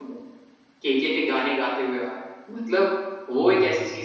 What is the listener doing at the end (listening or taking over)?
listening